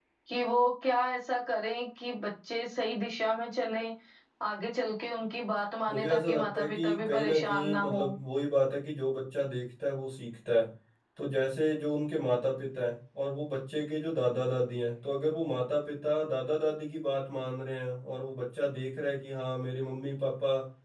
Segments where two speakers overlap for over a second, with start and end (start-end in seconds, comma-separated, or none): 5.9-8.0